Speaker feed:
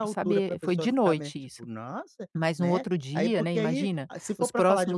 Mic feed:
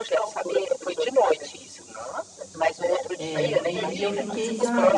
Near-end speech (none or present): present